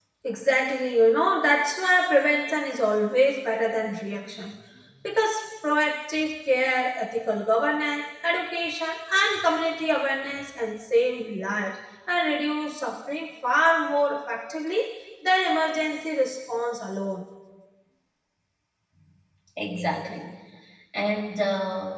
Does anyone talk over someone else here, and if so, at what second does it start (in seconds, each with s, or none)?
none